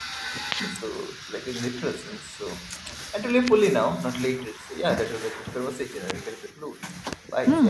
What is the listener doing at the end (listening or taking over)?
taking over